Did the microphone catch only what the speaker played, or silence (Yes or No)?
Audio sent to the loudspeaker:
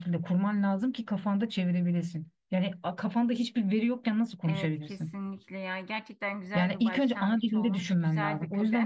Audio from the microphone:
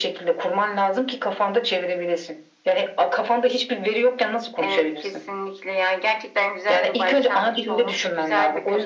Yes